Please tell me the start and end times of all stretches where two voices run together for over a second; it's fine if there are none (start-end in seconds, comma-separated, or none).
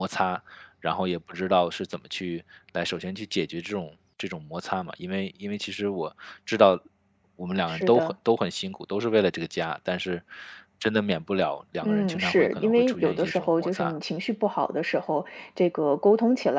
11.8-13.9